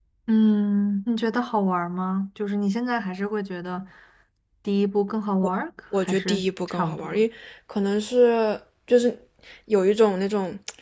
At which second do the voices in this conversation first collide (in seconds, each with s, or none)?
5.9 s